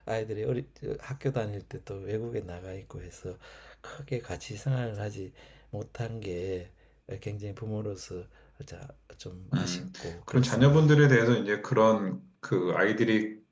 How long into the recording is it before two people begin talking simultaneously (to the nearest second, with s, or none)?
10 s